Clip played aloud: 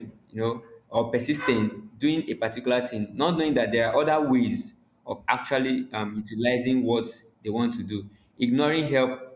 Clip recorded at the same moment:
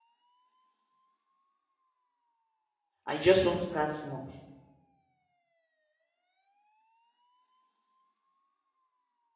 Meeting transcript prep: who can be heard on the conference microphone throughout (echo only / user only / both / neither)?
user only